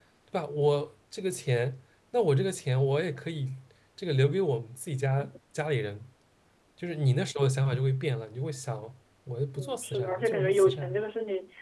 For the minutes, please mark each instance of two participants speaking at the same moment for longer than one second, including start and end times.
9.6-11.0

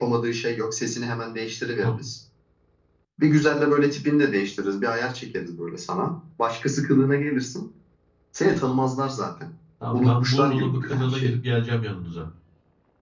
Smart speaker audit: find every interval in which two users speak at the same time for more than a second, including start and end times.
9.9-11.3

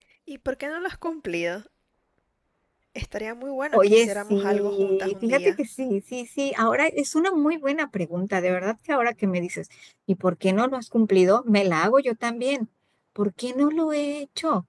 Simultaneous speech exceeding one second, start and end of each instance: 3.7-5.6

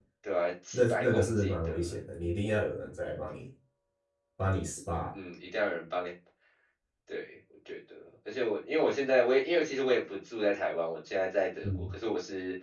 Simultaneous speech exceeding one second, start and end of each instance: 0.7-1.9

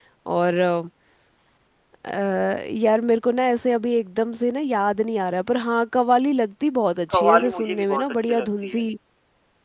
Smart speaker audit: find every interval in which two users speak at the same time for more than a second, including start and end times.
7.1-8.8

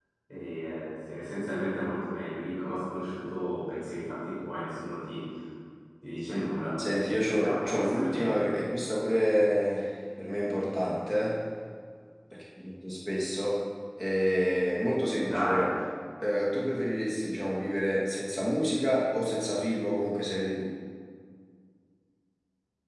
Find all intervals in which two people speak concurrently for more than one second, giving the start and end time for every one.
6.9-8.5

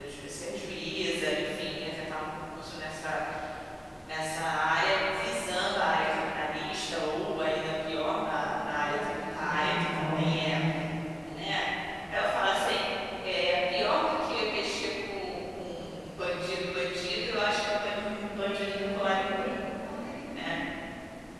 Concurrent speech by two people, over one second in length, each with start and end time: 8.8-10.6, 18.2-19.5

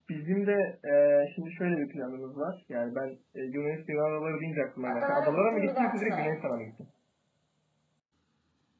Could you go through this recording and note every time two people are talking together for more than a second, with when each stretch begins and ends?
4.9-6.6

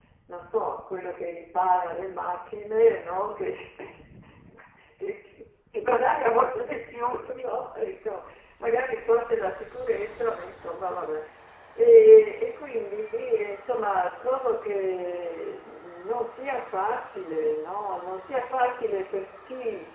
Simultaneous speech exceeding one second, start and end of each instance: 5.7-7.2

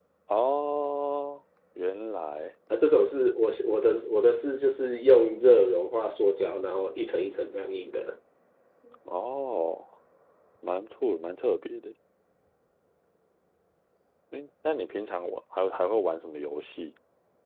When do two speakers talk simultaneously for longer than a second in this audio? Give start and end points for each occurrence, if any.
none

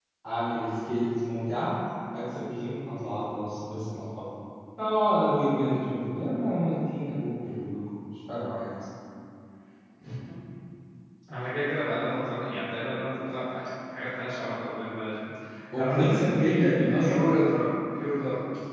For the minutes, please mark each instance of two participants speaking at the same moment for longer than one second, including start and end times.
15.8-17.2

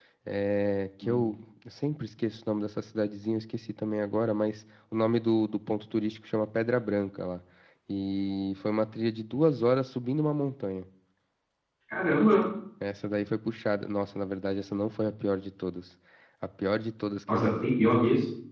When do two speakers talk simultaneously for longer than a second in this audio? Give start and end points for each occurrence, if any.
none

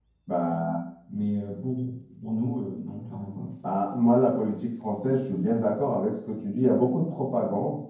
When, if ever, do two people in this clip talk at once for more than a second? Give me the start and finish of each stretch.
none

